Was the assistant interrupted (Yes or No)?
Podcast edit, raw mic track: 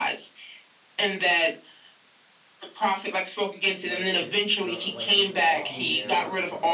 Yes